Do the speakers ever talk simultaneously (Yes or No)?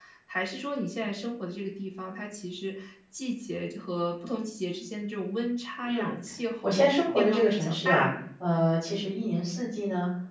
Yes